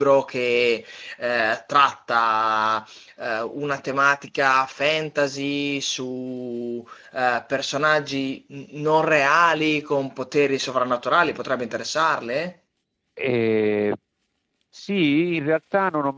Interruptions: none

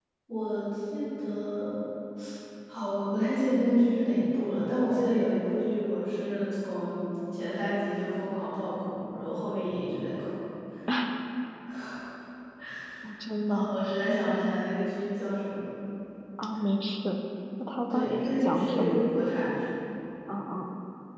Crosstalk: present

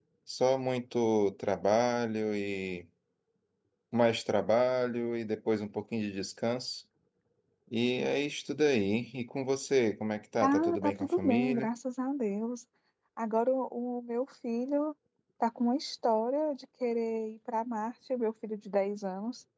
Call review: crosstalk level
present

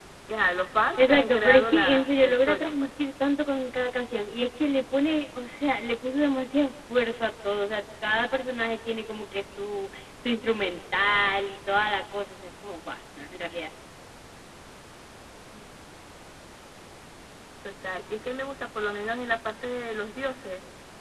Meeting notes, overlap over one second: present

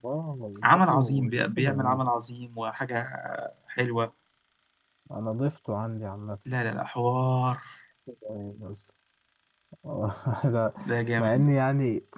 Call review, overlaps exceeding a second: present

